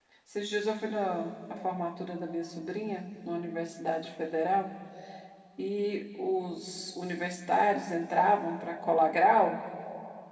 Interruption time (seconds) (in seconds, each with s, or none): none